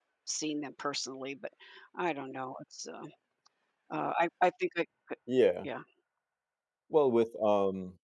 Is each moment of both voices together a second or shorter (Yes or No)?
Yes